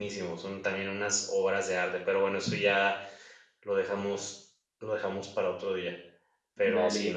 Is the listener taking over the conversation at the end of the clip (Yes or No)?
No